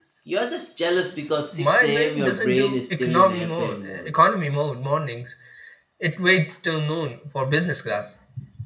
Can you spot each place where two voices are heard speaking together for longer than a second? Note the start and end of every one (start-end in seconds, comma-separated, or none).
1.5-4.1